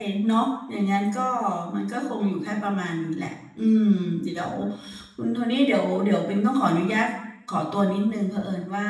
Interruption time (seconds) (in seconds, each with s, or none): none